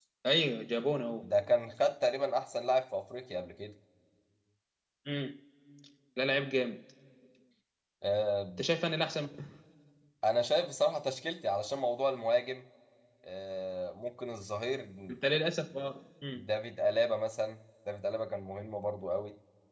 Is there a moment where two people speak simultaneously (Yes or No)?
No